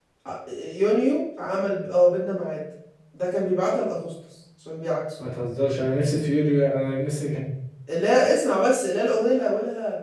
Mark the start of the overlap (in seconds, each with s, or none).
none